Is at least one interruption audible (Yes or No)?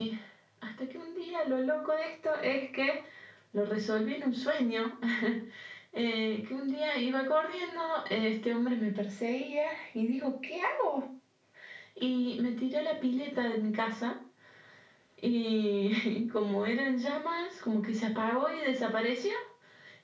No